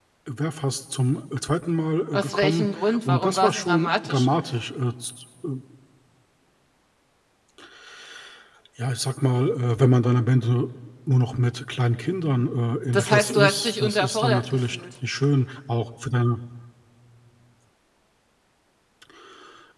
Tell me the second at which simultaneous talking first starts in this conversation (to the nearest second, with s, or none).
2 s